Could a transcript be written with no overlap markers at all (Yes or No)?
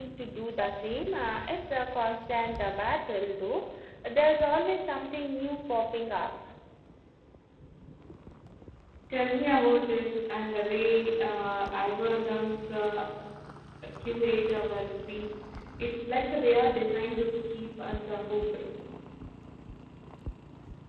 Yes